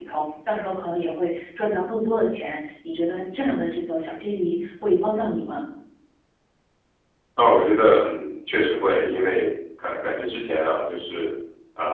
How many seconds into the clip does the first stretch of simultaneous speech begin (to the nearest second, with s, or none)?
none